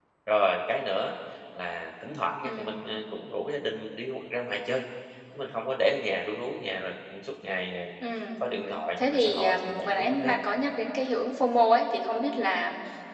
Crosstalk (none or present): present